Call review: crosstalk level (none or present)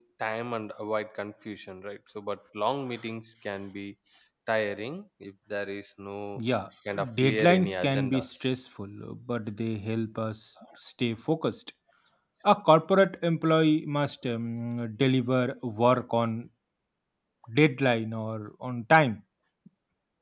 present